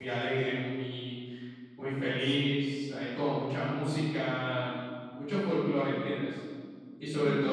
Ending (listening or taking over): listening